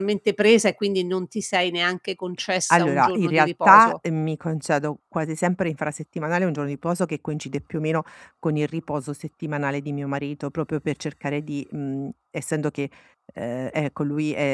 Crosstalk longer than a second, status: present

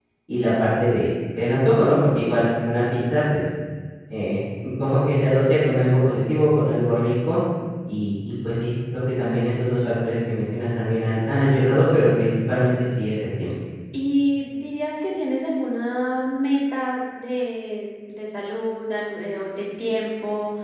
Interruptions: none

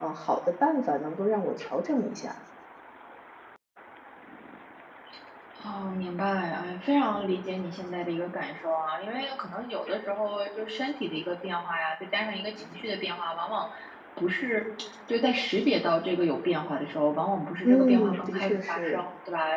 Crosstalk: present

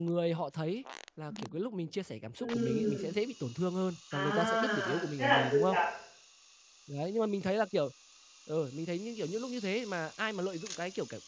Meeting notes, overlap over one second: present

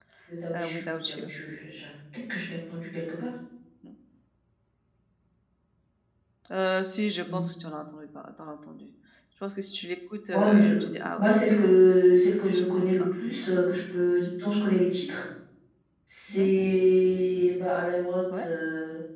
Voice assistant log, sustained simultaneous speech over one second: present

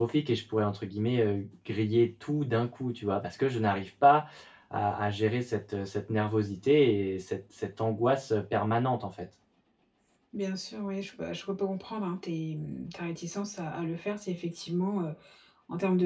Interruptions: none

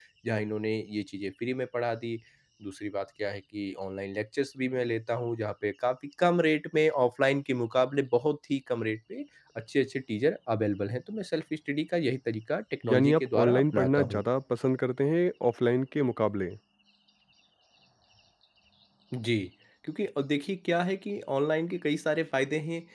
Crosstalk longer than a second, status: present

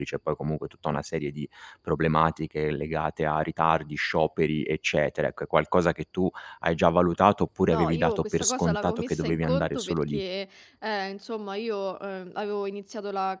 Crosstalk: present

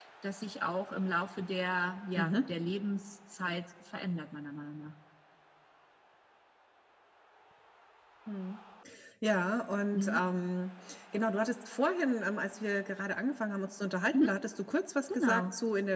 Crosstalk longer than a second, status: none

